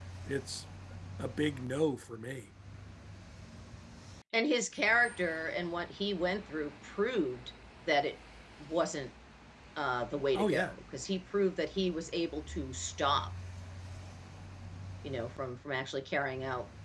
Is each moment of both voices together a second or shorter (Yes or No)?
Yes